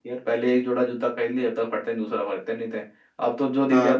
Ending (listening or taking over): listening